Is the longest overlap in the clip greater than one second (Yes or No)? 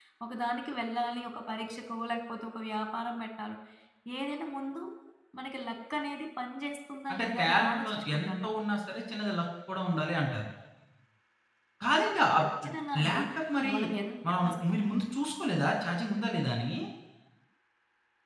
Yes